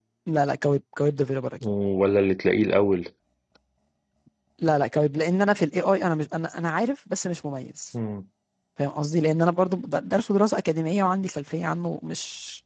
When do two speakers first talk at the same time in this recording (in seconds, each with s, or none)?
none